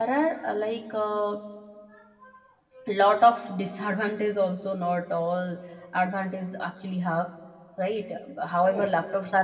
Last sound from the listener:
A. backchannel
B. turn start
A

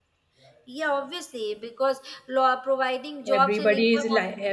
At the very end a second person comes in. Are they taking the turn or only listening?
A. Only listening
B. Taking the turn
B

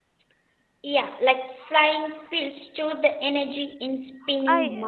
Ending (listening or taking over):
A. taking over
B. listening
A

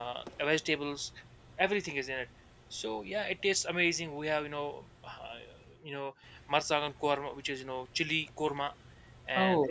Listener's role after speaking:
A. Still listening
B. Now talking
A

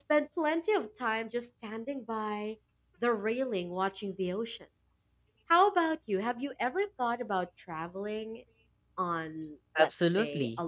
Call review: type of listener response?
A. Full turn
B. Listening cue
A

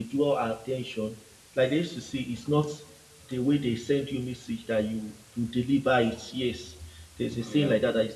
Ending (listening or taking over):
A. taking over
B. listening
B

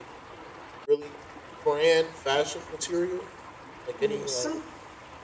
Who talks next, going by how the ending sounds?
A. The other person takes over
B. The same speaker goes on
A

